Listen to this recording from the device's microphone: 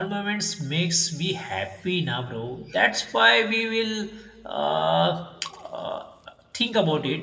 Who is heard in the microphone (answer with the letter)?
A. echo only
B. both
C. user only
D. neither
C